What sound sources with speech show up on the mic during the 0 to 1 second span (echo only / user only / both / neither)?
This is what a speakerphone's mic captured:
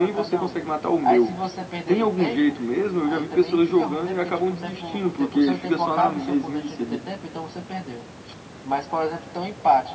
echo only